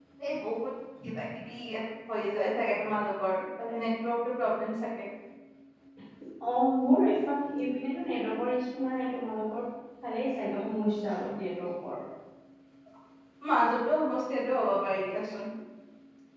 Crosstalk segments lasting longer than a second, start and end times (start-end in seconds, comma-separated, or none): none